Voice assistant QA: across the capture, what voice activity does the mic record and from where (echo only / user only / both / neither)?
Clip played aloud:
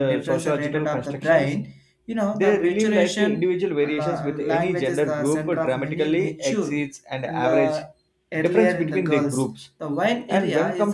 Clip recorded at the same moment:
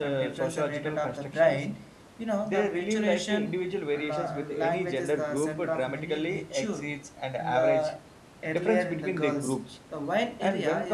echo only